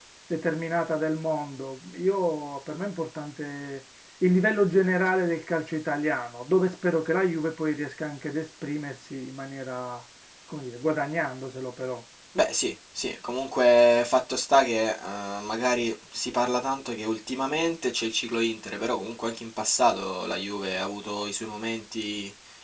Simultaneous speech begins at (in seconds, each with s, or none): none